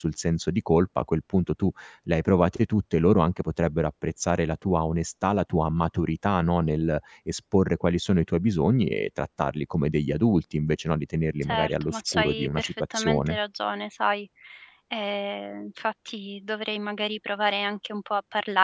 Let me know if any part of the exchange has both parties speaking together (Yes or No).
Yes